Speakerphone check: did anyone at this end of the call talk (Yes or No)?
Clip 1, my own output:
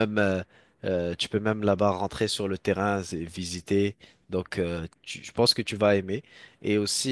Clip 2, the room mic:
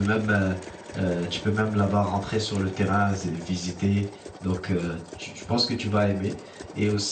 No